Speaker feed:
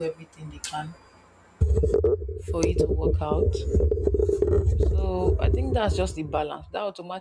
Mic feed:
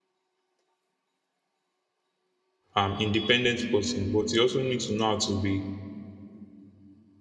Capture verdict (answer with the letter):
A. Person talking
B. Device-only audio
A